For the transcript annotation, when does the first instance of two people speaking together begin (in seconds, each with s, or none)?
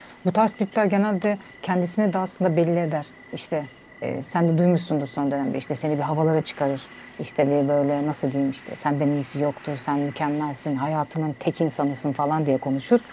none